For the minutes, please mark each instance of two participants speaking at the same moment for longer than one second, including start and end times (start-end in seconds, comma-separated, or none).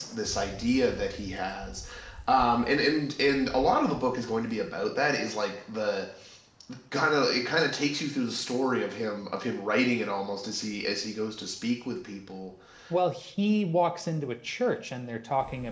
none